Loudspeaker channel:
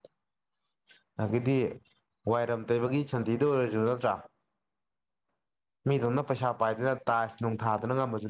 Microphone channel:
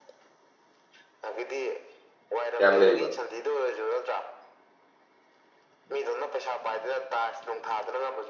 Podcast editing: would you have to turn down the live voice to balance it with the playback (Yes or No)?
Yes